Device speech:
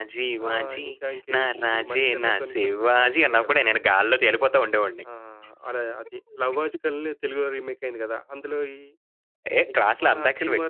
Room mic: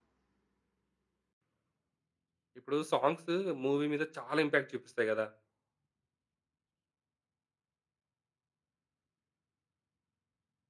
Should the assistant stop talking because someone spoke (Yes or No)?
Yes